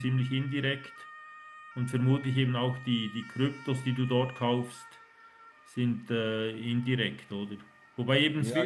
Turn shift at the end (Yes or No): No